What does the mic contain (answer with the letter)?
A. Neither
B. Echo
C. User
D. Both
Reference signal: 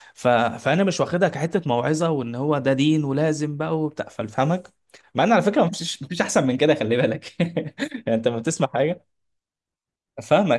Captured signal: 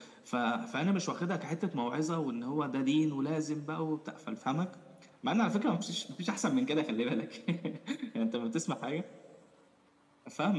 B